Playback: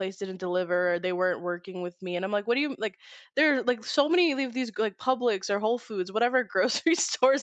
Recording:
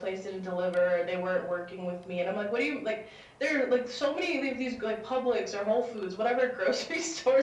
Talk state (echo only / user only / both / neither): echo only